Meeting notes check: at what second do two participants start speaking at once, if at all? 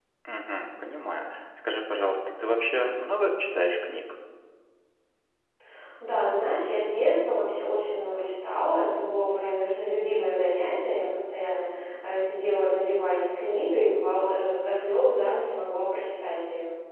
none

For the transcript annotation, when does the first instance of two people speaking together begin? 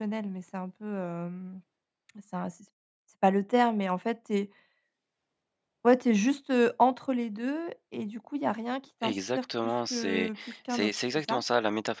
9.0 s

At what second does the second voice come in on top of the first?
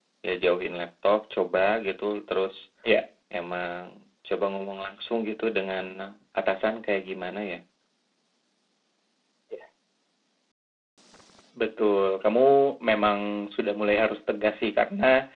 none

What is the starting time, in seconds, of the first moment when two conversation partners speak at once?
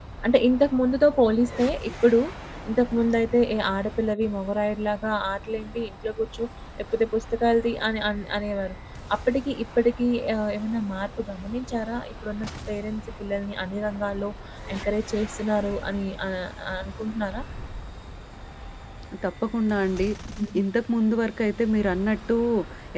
none

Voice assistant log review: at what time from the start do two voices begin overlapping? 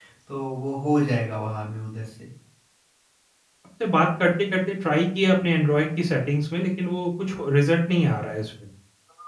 none

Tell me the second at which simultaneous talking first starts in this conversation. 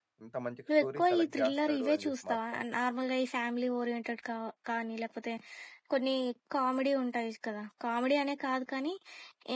0.8 s

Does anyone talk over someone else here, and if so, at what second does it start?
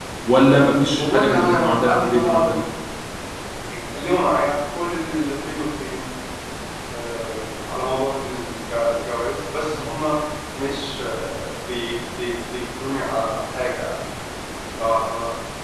1.0 s

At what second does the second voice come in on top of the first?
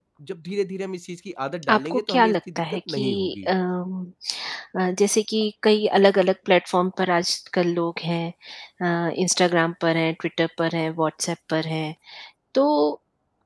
1.6 s

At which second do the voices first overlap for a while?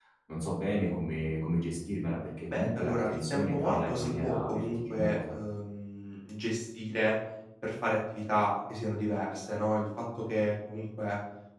2.5 s

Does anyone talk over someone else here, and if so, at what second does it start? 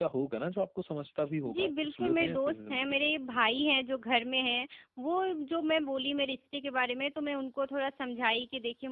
1.4 s

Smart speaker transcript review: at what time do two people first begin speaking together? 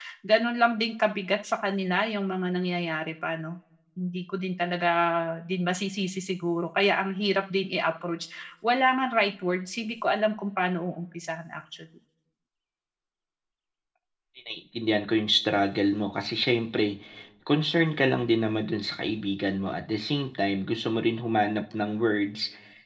none

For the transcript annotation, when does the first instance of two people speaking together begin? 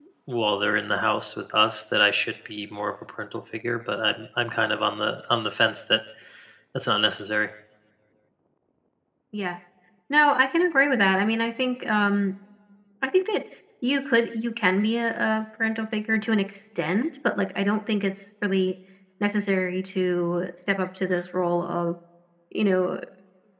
none

